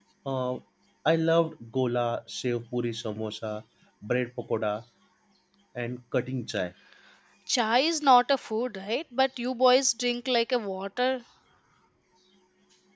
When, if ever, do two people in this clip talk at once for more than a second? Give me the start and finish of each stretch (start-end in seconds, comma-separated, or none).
none